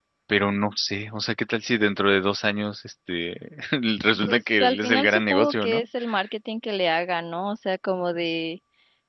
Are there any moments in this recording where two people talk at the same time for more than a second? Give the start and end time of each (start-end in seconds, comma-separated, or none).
4.2-5.8